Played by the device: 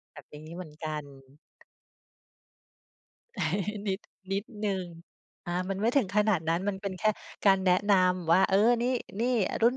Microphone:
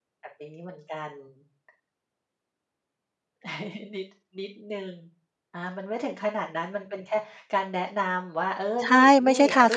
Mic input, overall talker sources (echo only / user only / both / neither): both